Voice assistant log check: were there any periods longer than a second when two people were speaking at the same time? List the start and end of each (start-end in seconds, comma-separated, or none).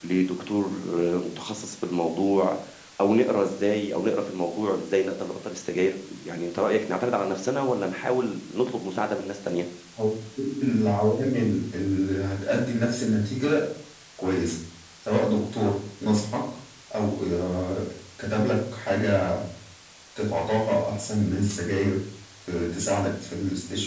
none